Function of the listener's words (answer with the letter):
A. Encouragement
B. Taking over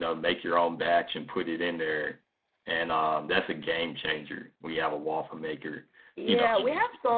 B